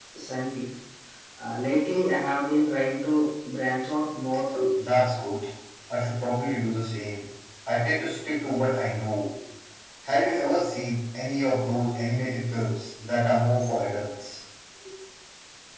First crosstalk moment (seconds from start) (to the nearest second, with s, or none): none